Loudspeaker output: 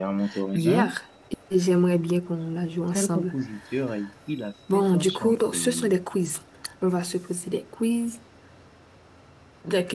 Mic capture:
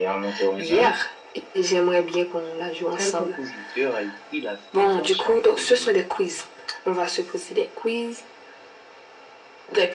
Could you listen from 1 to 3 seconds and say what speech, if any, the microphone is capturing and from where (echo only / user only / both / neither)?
echo only